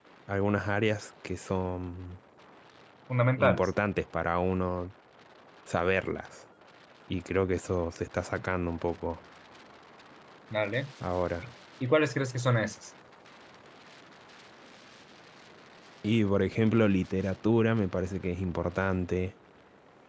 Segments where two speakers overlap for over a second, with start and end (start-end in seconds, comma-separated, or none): none